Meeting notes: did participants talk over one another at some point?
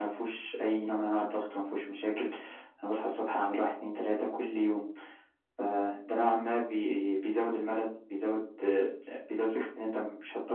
No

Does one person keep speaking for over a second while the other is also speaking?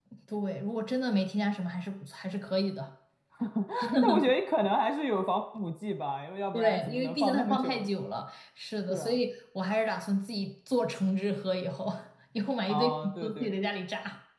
Yes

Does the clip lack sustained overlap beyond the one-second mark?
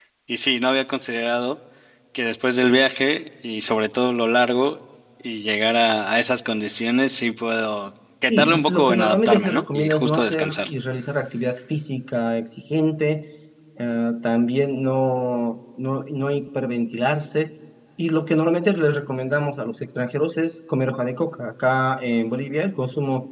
No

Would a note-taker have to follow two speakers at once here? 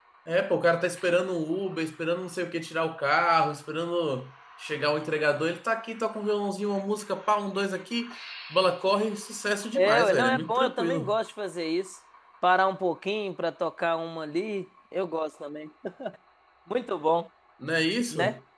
Yes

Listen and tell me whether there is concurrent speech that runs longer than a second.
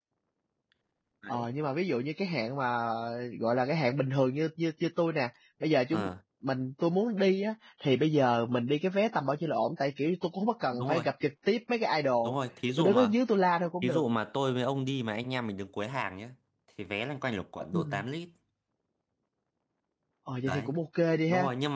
No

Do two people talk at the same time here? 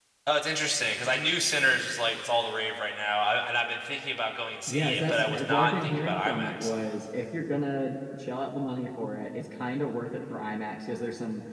Yes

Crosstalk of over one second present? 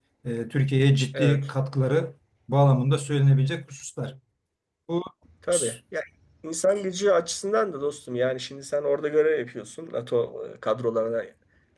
No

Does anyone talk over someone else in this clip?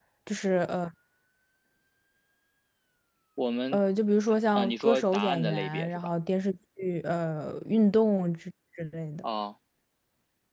Yes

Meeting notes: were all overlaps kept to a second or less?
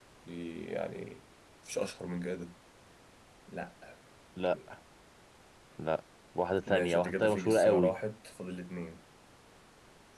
No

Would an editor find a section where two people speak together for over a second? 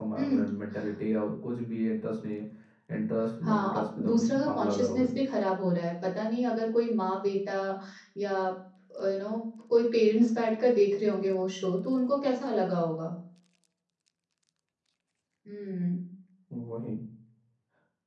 Yes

